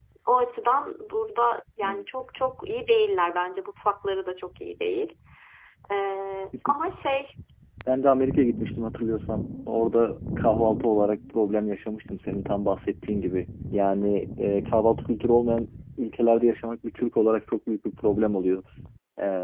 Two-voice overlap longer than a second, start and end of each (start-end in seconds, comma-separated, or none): none